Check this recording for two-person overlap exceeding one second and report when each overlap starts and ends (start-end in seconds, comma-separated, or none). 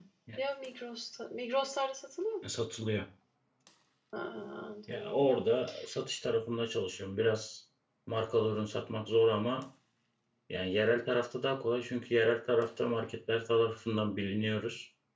none